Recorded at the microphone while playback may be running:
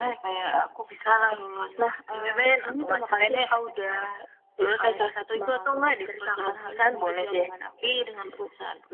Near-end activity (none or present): none